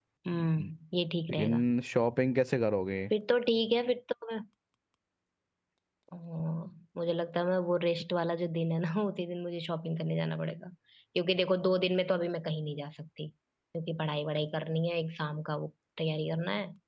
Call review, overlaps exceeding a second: none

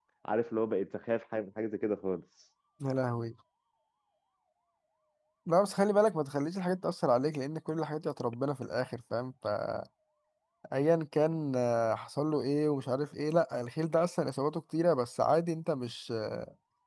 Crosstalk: none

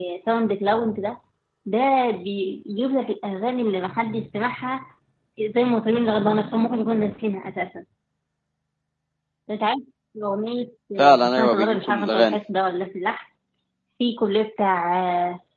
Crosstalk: present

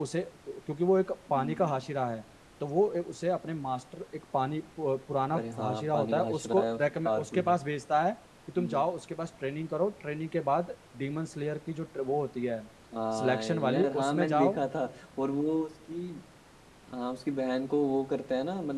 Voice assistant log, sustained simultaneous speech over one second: present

